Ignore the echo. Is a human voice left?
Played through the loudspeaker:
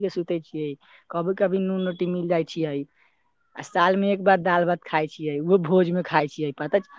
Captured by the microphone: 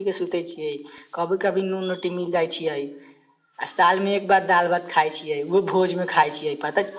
No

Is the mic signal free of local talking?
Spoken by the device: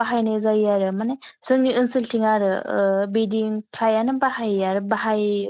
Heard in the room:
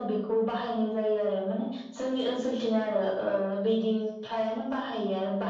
Yes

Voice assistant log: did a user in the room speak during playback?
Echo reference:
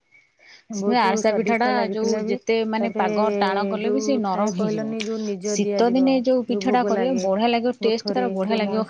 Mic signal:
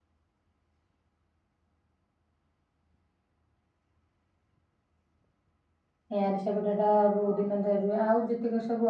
Yes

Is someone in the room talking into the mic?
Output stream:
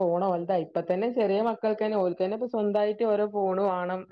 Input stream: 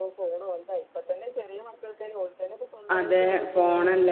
Yes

